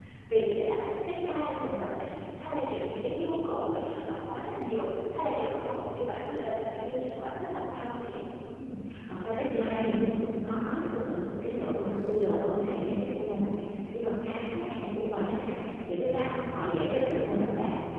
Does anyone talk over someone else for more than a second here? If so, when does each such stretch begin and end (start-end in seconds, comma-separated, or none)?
none